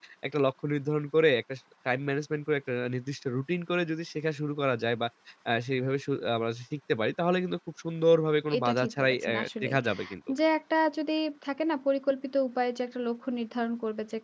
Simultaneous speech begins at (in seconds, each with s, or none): 8.5 s